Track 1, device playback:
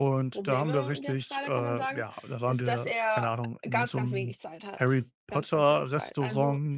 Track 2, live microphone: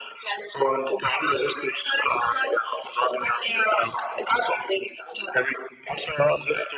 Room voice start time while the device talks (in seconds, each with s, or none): none